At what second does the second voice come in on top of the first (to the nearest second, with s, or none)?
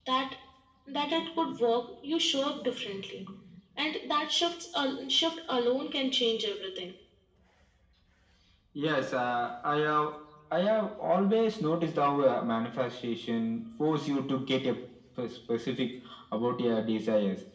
none